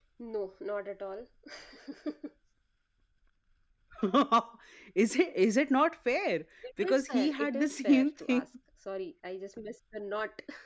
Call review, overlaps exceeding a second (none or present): present